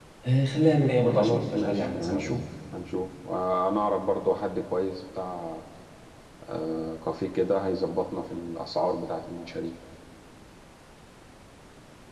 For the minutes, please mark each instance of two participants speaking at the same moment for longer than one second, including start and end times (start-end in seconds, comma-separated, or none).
1.1-2.4